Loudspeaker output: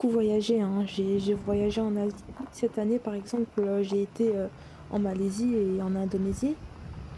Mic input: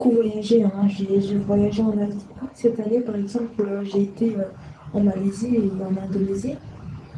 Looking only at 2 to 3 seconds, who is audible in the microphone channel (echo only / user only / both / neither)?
echo only